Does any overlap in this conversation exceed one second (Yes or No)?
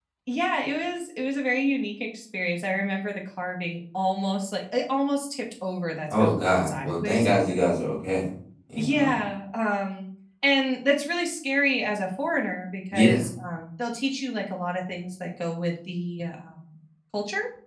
Yes